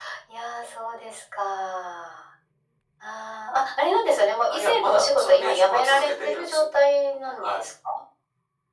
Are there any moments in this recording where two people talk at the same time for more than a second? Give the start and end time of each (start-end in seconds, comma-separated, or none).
4.5-6.6